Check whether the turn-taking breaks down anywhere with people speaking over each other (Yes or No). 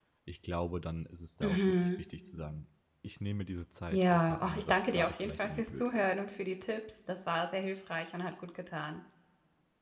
Yes